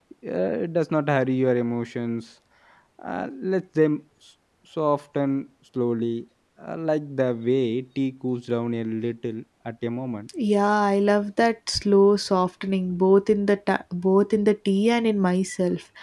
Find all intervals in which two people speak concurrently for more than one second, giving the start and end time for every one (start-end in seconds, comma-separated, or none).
none